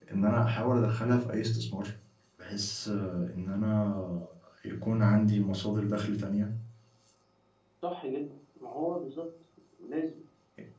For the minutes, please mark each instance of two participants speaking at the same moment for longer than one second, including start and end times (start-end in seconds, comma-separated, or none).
none